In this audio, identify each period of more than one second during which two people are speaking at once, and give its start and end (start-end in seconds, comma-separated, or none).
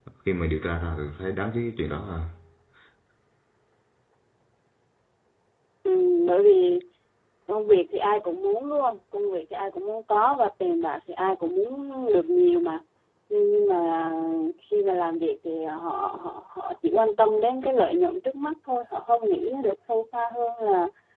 none